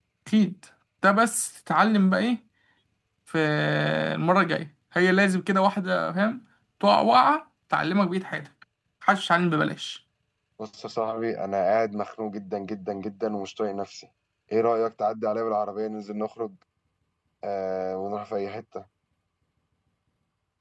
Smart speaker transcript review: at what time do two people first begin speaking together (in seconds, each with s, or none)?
none